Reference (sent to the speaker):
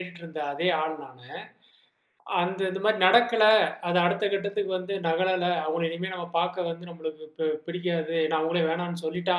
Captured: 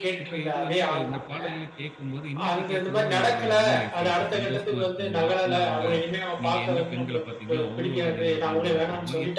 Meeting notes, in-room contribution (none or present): present